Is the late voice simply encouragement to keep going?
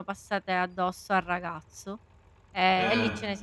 Yes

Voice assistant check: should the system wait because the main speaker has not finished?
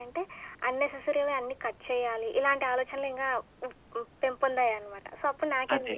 No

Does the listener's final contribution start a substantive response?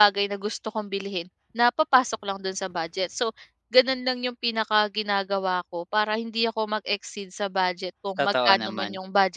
No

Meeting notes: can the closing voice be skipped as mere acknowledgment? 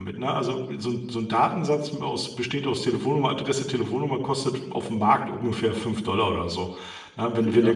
Yes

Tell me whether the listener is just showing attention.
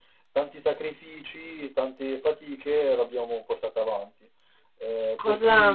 No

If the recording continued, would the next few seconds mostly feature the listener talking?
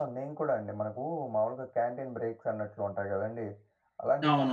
No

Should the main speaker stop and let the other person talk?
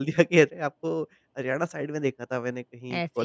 No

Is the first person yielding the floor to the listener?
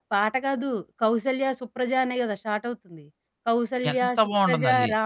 No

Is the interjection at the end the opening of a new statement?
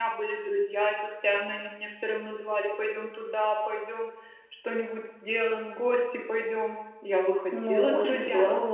Yes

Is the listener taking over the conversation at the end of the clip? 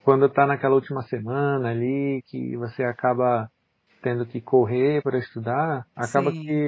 No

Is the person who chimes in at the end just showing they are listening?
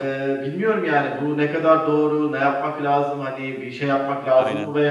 Yes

